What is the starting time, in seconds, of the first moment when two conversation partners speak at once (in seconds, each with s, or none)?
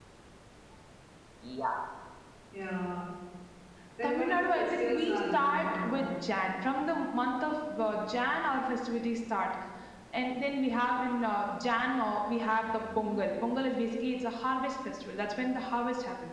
4.0 s